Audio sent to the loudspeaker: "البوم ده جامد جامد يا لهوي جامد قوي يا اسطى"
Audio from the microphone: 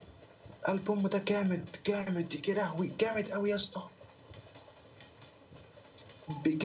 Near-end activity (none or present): none